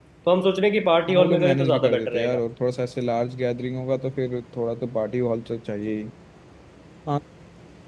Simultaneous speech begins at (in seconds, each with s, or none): 1.1 s